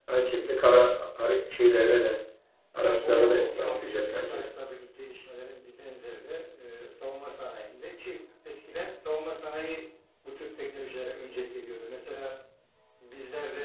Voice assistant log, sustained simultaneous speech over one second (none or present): present